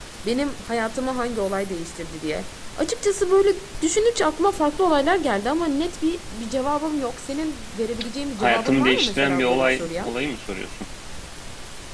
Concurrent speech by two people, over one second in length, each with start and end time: 8.4-10.1

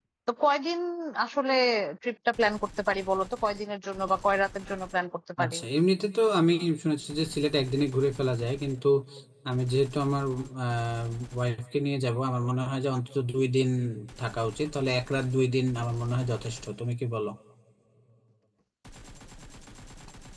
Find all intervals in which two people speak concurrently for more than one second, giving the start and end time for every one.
none

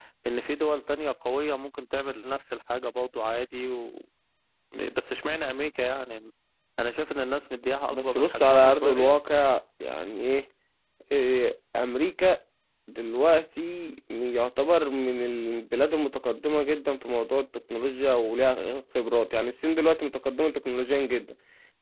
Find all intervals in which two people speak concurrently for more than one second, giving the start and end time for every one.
7.9-9.2

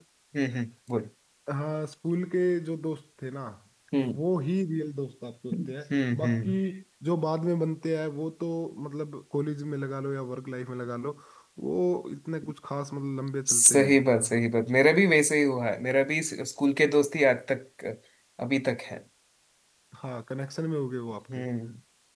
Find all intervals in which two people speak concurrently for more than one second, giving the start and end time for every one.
none

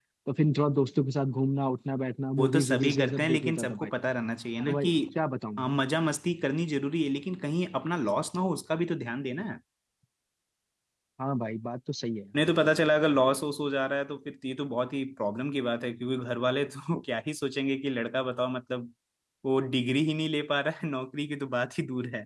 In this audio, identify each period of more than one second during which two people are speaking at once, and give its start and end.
2.4-3.9

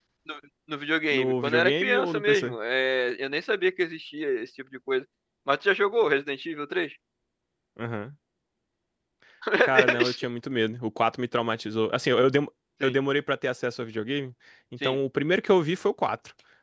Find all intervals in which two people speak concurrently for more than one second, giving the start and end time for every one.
1.1-2.5

